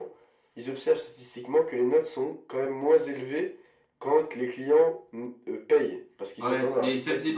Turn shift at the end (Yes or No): Yes